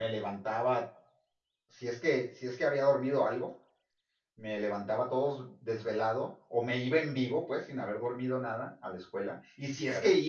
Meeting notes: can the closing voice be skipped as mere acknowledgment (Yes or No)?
Yes